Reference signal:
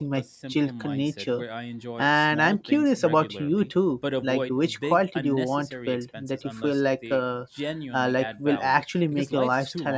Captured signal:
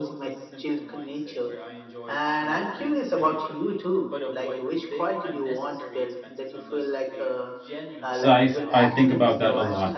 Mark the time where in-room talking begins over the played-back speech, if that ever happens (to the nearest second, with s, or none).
8 s